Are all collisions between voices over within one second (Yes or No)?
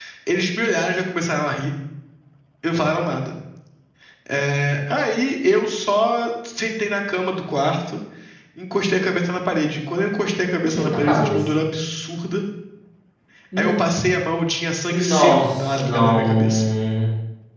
No